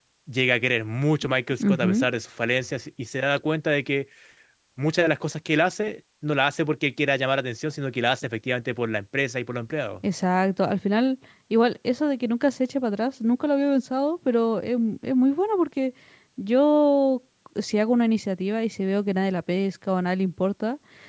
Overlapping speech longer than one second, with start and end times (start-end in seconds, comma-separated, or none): none